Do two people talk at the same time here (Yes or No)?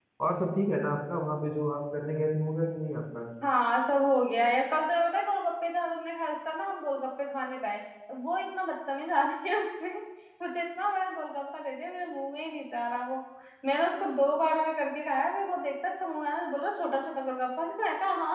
No